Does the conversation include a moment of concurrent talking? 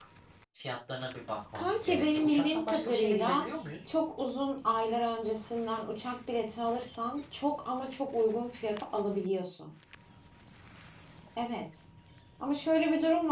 Yes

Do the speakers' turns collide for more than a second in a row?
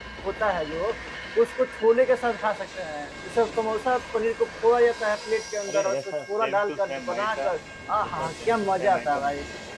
Yes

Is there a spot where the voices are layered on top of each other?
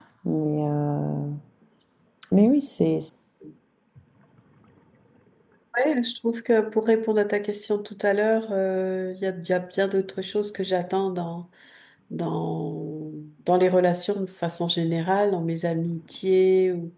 No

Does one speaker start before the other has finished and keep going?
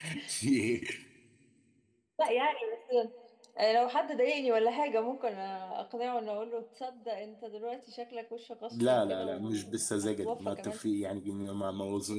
Yes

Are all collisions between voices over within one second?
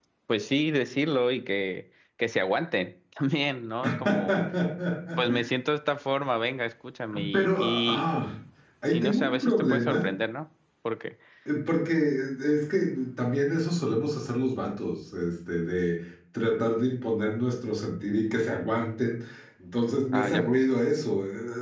No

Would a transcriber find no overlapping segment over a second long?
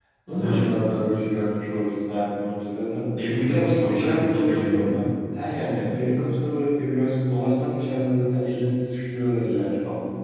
No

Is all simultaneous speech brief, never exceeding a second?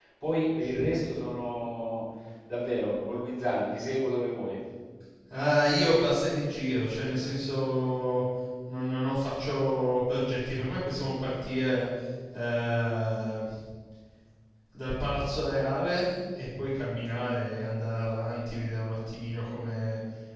Yes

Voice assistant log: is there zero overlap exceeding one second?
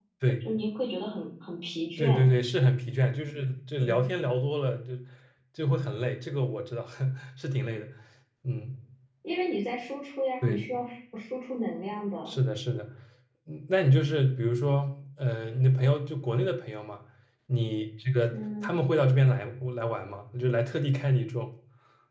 Yes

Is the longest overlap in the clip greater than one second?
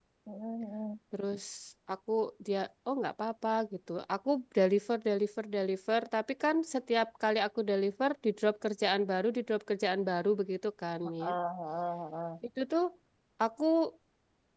No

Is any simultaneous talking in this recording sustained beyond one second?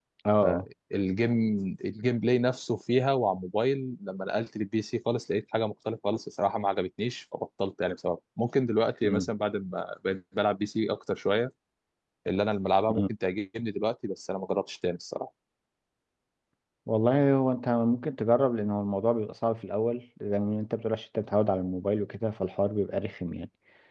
No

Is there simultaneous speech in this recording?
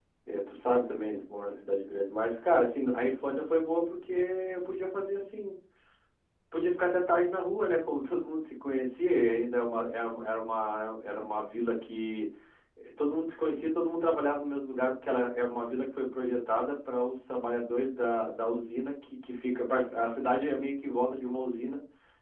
No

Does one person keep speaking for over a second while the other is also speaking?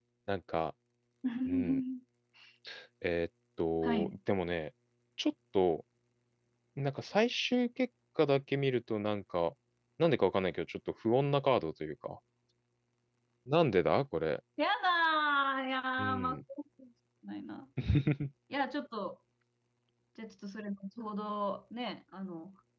No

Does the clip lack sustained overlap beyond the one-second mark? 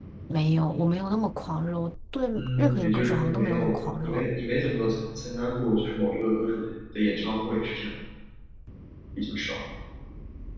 No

